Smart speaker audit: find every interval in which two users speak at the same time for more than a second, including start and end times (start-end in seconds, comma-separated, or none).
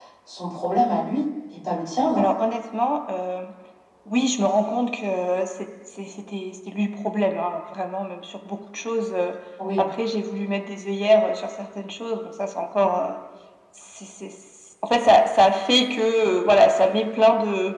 none